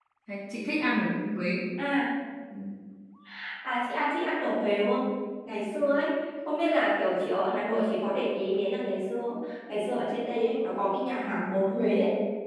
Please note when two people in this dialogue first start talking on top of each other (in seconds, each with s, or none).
none